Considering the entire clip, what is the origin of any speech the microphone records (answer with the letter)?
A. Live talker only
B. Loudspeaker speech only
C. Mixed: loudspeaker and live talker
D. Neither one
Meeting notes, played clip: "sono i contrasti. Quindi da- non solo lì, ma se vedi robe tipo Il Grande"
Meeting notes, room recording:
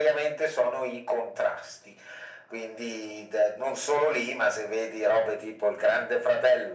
B